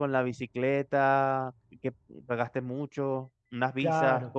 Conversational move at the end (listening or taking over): taking over